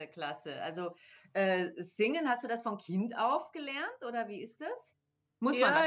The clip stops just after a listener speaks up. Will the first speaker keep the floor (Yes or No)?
No